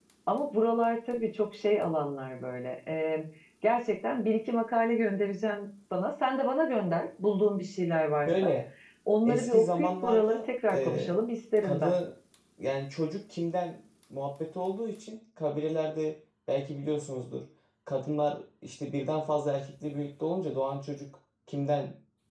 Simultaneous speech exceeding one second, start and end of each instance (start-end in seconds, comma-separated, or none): 9.2-11.1